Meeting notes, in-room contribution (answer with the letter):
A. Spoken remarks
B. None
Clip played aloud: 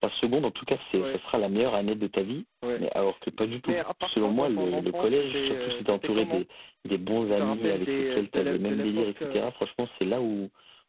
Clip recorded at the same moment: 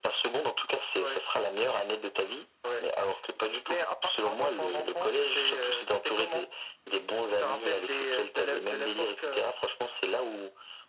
B